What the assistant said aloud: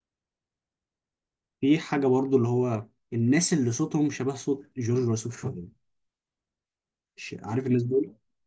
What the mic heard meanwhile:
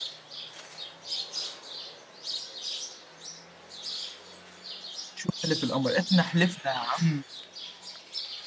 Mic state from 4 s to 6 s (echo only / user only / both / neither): user only